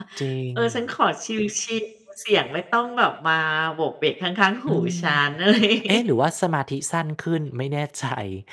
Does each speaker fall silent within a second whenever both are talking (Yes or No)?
Yes